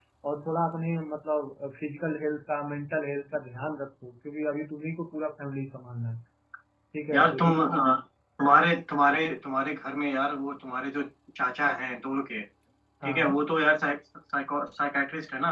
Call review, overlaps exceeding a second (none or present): none